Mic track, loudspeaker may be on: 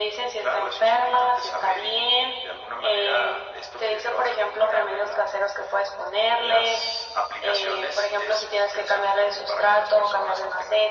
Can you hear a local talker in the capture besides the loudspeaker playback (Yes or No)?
No